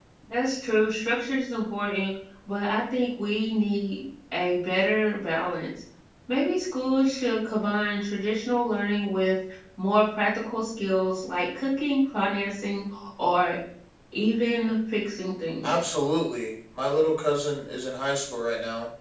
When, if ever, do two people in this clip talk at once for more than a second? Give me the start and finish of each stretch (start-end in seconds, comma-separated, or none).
none